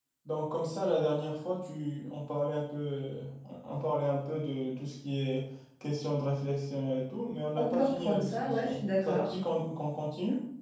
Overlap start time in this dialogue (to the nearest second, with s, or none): 8 s